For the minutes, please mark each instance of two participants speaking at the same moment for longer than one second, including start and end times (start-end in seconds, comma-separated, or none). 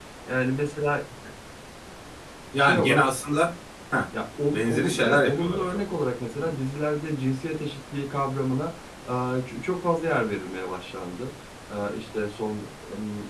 4.5-5.9